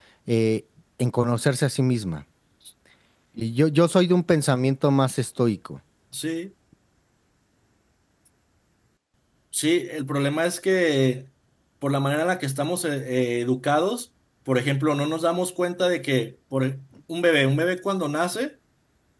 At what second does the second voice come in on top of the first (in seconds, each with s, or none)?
none